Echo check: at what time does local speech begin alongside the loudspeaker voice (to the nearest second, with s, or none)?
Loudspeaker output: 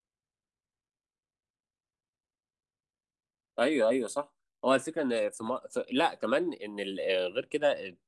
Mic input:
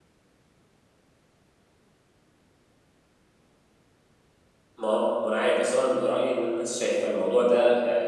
5 s